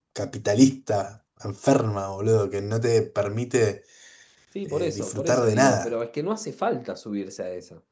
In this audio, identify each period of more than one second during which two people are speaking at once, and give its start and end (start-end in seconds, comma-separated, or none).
4.7-5.9